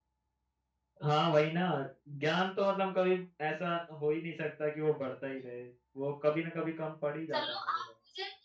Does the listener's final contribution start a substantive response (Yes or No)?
Yes